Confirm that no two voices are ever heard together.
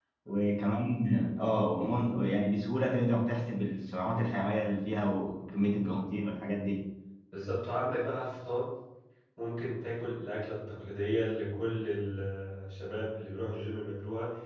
Yes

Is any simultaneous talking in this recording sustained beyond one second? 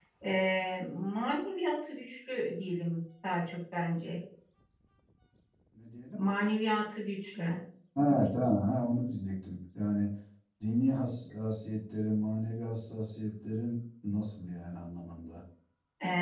No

